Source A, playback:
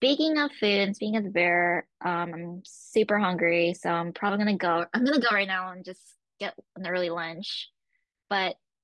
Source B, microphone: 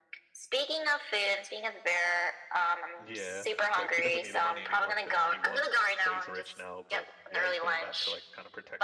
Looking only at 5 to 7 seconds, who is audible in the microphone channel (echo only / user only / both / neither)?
both